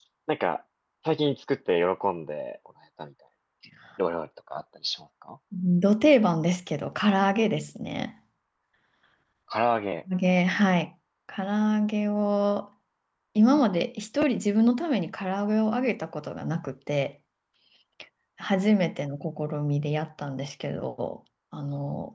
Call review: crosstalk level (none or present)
none